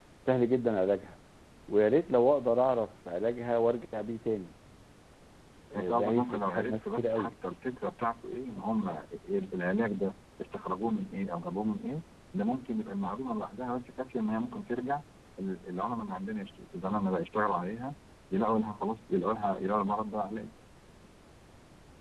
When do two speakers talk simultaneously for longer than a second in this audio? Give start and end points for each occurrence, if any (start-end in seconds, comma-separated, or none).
5.7-7.3